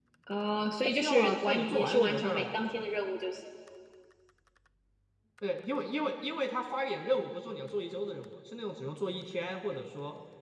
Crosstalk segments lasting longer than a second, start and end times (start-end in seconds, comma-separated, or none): 0.9-2.6